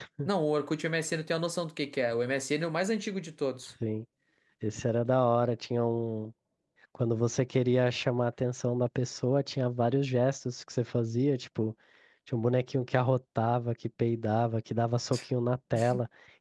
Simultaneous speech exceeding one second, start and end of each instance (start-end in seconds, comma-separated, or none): none